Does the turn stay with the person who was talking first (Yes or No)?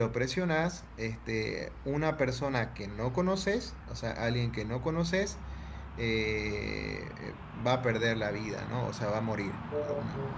Yes